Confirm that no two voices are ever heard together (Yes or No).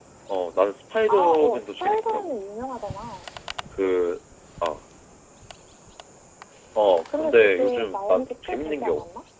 No